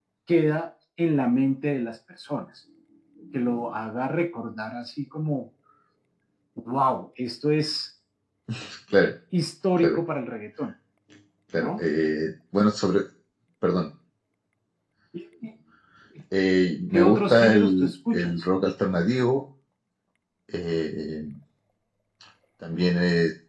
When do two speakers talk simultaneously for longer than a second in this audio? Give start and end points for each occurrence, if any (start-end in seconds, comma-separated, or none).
16.9-18.4